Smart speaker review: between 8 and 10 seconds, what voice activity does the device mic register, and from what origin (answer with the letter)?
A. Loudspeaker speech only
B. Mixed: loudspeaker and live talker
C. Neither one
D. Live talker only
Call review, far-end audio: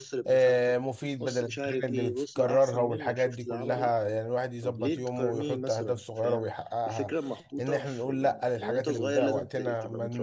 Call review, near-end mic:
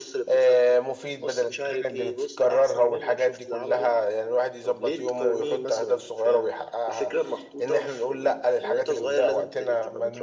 A